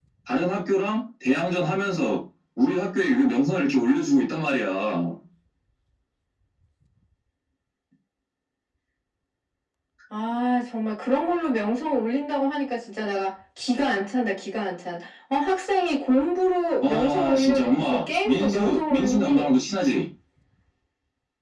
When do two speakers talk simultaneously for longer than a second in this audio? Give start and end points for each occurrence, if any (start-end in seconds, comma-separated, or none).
16.8-19.5